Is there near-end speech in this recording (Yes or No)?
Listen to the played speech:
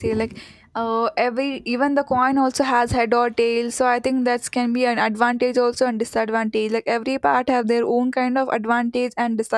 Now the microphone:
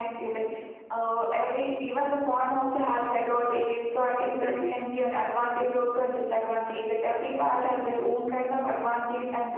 Yes